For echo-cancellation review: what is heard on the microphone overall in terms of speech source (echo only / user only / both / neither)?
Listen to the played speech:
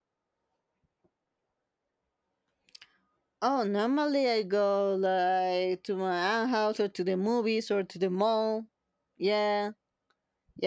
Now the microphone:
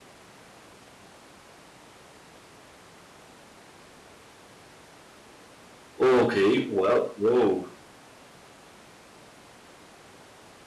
user only